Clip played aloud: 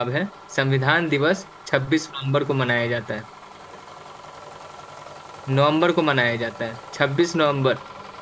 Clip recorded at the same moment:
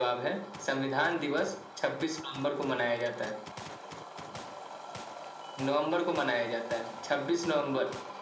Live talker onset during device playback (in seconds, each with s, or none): none